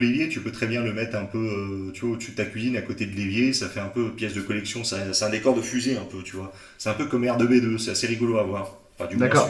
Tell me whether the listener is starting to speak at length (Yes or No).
Yes